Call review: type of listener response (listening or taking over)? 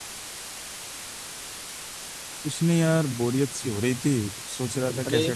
listening